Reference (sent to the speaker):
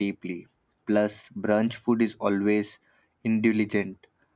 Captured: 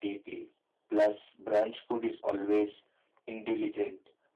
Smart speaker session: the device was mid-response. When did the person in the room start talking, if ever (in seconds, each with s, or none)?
none